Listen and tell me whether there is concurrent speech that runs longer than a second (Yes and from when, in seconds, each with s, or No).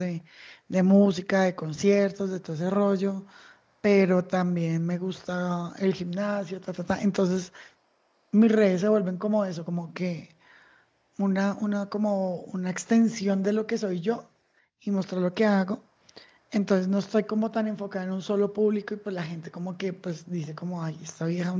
No